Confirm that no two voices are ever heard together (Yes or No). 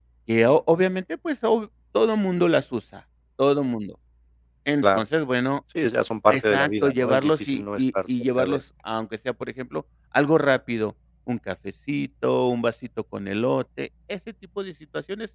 No